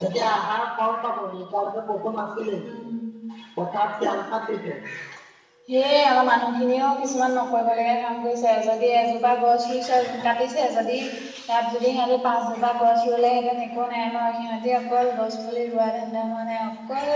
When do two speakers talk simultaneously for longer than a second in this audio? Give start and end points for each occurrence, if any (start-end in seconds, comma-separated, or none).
none